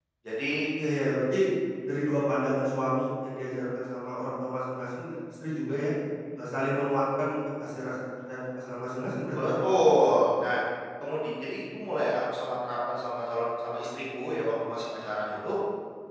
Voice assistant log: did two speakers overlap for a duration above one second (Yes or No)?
No